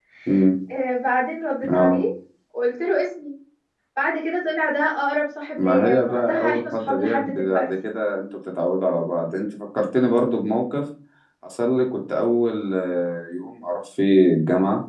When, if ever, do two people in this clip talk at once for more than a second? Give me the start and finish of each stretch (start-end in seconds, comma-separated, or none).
5.6-7.7